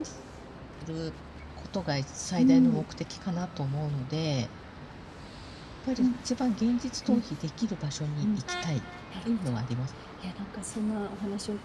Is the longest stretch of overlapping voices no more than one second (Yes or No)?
Yes